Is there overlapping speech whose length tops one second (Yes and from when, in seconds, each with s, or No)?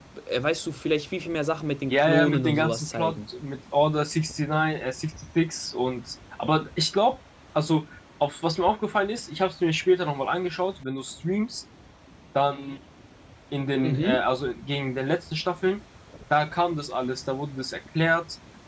Yes, from 1.9 s